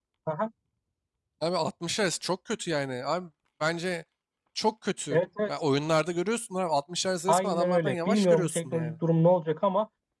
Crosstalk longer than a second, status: present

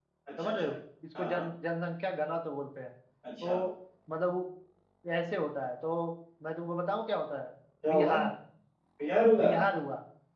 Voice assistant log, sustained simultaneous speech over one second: none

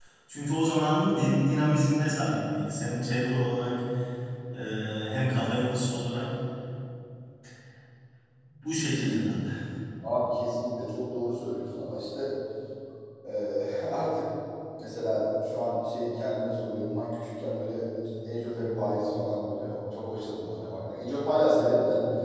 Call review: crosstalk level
none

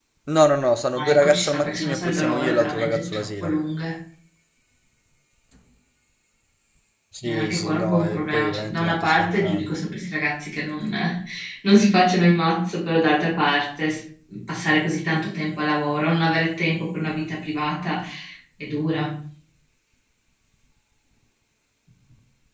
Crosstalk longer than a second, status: present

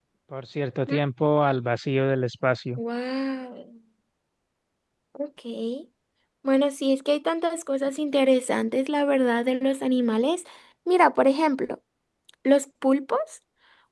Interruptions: none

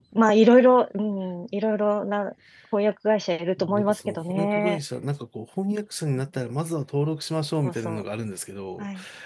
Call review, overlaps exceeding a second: present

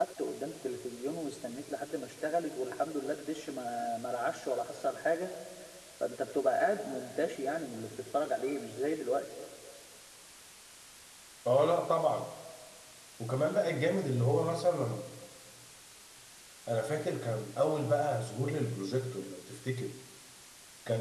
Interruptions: none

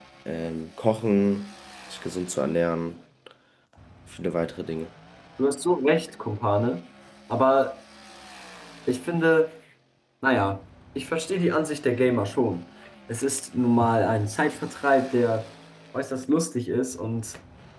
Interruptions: none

